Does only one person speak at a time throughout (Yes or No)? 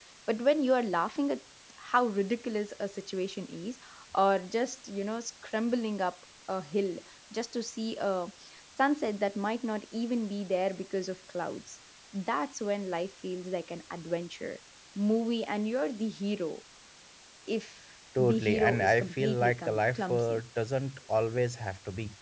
No